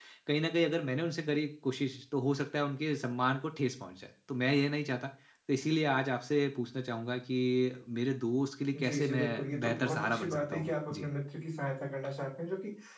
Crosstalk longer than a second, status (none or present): present